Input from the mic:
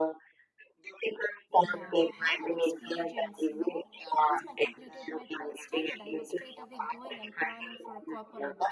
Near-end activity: present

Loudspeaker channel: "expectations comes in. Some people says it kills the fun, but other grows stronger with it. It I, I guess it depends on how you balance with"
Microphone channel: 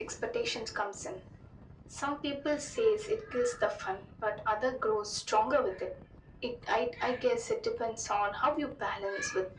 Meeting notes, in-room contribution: none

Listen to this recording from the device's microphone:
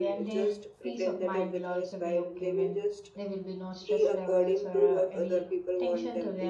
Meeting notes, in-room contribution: present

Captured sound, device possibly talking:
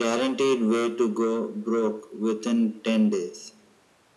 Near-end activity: none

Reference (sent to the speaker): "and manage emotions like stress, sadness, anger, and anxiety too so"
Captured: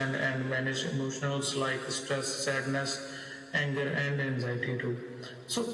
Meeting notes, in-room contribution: none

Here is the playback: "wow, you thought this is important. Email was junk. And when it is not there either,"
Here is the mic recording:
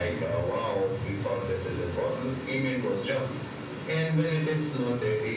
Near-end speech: none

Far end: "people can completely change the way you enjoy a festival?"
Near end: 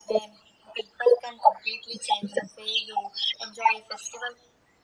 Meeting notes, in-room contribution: none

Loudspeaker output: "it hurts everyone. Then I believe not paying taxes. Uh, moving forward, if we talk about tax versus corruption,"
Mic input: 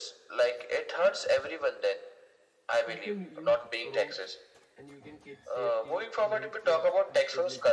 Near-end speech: present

